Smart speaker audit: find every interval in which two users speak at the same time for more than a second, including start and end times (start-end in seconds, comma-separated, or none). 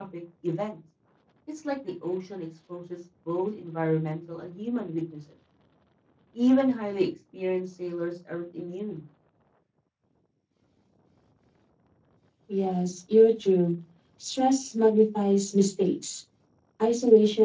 none